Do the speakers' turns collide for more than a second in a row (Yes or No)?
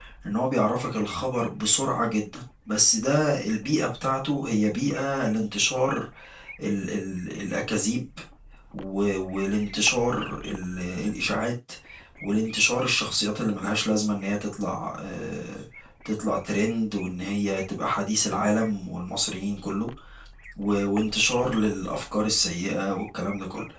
No